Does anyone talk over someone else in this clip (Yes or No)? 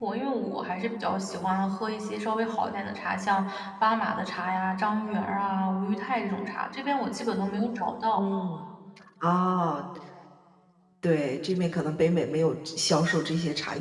No